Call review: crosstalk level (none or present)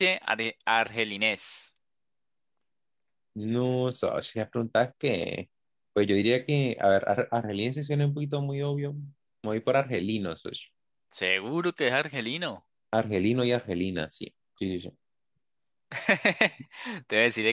none